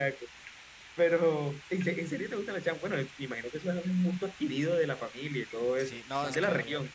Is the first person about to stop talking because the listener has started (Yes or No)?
Yes